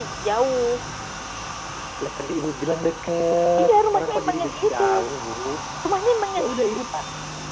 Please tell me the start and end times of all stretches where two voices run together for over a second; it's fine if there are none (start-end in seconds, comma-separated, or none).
3.6-4.8